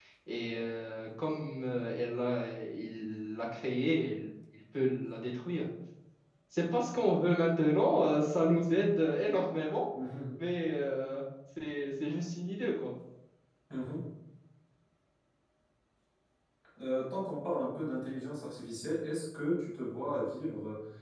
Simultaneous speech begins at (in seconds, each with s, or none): none